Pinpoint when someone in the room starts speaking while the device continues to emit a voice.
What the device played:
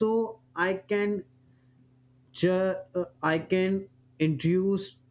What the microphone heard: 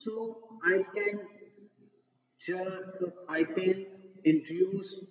none

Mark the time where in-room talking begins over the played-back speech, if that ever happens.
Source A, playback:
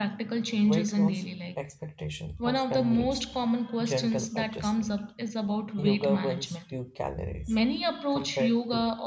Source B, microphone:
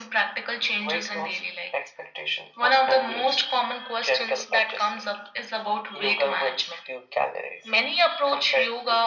none

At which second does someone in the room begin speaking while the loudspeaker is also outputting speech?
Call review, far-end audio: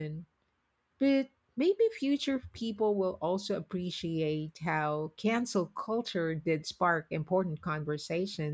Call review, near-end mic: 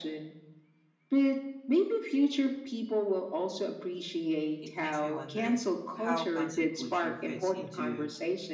4.6 s

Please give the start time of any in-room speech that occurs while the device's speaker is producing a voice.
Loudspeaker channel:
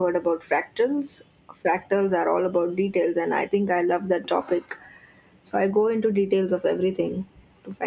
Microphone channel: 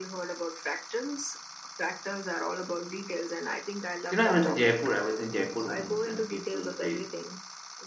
4.1 s

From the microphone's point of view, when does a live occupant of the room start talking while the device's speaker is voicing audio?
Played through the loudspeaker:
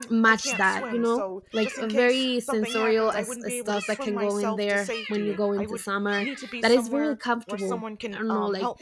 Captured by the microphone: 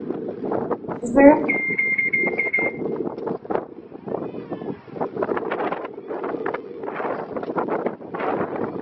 1.0 s

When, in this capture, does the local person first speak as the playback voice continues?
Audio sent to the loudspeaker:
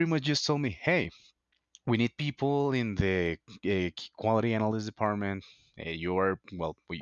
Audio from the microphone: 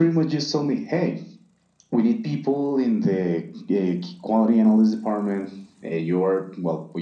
none

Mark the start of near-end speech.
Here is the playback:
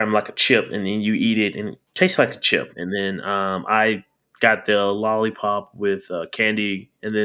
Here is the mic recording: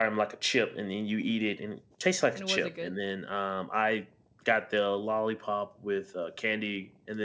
2.3 s

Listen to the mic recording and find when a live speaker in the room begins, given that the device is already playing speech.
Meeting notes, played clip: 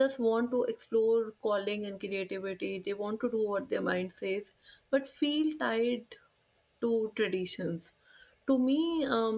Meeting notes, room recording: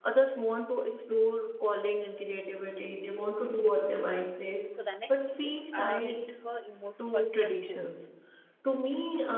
4.7 s

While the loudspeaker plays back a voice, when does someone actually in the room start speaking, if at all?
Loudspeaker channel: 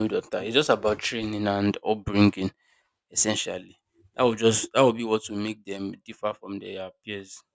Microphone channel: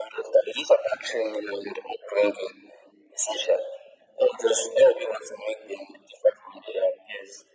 none

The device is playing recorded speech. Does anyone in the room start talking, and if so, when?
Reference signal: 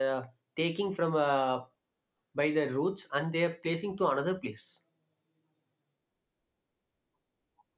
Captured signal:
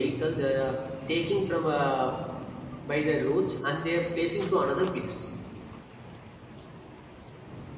none

